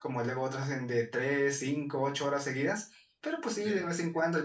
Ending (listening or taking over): listening